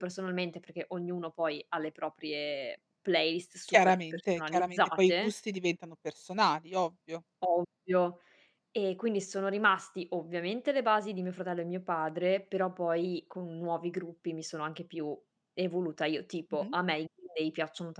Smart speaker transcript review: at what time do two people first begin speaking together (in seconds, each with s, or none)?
3.7 s